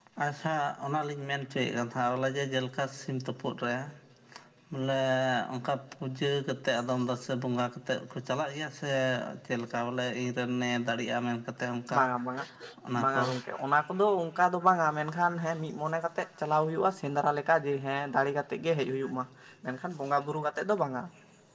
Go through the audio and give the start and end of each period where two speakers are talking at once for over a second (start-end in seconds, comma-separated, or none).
none